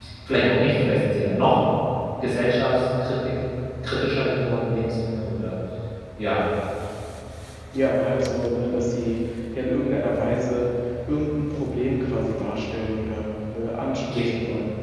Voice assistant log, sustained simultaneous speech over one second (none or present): none